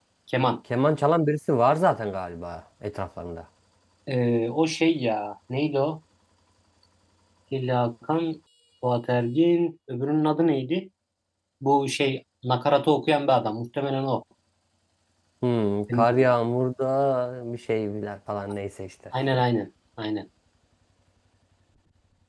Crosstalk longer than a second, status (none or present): none